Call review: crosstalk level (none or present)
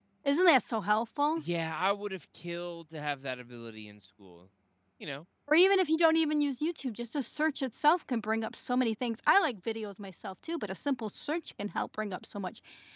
none